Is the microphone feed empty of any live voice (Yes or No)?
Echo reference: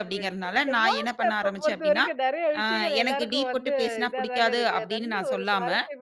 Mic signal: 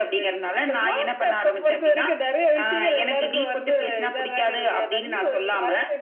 Yes